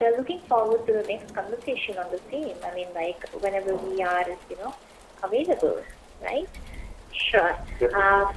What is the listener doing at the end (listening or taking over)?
listening